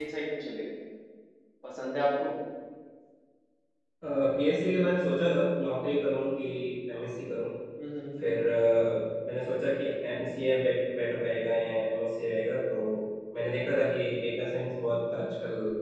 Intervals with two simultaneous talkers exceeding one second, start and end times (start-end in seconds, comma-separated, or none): none